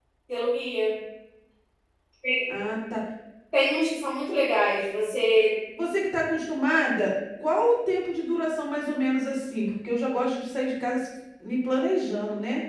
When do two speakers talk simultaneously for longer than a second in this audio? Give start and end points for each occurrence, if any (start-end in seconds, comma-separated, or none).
none